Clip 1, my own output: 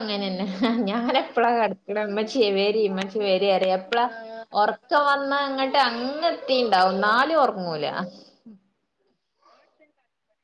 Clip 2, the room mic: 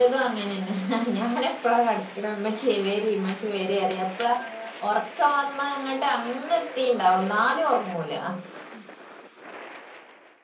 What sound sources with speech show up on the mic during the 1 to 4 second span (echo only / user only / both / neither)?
echo only